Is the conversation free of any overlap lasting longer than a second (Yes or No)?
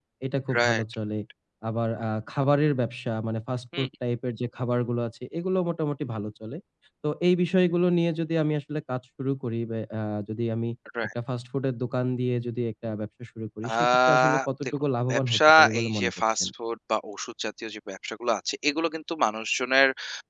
No